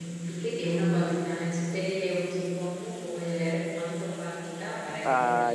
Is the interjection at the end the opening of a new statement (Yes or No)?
No